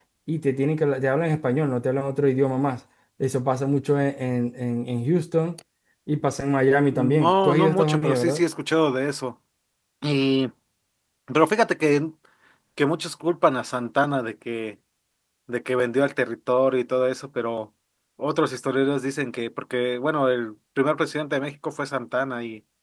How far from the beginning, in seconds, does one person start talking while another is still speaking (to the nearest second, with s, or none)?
7 s